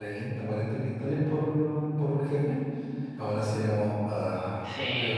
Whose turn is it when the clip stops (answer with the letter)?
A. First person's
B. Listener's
B